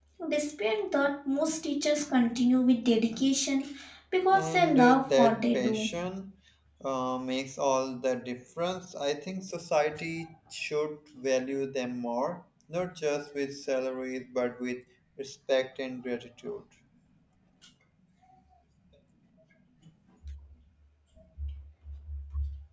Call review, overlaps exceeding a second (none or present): present